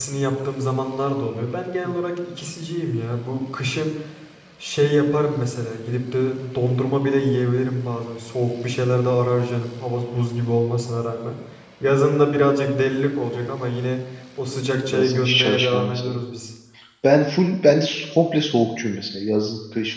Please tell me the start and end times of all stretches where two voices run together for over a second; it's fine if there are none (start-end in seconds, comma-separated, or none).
14.9-16.2